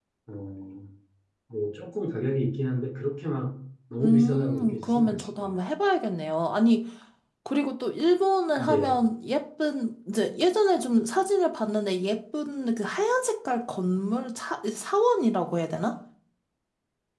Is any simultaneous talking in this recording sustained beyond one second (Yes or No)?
Yes